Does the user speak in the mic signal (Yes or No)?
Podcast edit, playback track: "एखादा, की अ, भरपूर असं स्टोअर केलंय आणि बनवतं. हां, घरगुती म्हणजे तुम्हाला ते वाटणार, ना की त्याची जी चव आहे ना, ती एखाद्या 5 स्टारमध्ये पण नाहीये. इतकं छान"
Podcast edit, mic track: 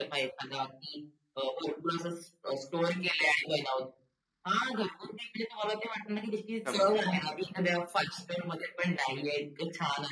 Yes